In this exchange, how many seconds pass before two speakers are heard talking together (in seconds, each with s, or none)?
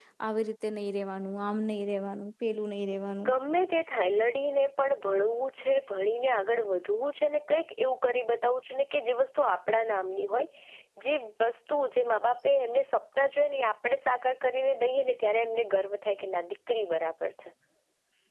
none